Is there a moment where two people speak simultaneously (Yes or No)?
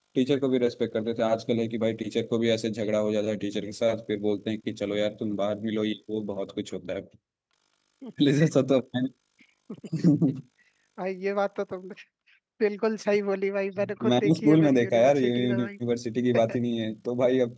Yes